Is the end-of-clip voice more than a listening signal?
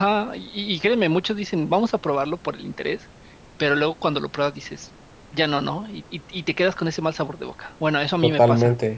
Yes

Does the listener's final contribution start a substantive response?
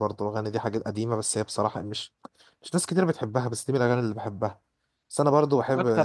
No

